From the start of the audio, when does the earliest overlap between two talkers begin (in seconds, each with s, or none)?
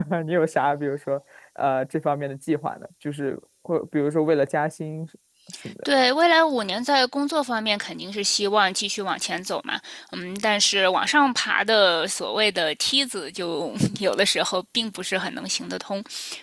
none